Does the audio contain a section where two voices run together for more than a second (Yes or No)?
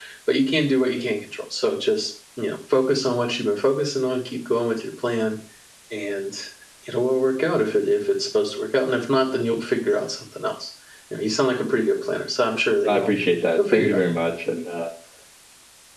No